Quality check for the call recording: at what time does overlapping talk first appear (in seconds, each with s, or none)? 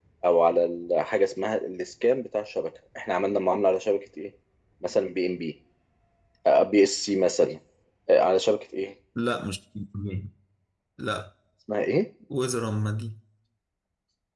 none